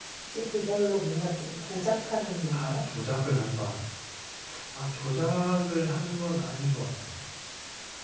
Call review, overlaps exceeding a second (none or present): none